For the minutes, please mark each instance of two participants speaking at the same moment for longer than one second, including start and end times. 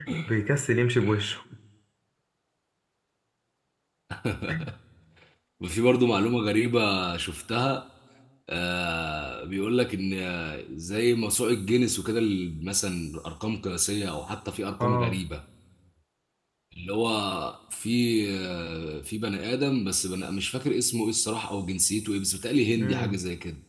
none

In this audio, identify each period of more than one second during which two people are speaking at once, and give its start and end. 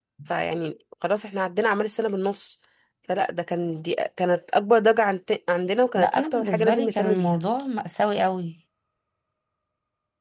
6.0-7.4

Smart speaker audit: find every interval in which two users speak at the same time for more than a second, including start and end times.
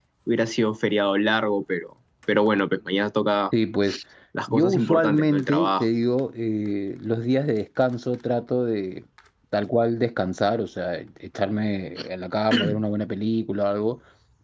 4.5-5.8

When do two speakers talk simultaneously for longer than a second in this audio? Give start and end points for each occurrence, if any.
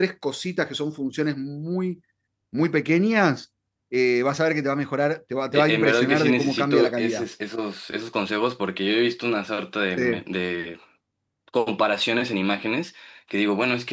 5.5-7.2

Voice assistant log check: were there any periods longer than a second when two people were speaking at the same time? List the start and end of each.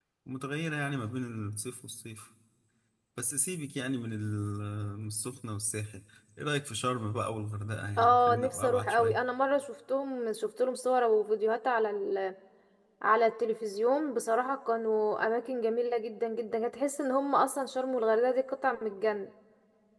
8.0-9.2

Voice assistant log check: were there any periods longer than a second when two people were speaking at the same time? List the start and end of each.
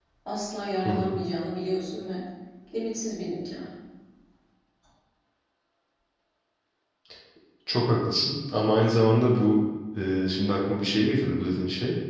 none

